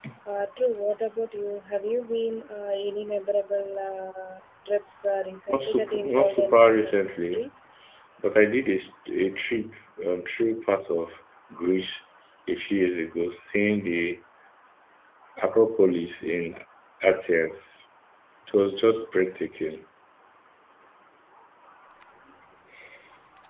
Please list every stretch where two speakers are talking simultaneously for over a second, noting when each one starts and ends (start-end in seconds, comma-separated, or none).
5.5-7.5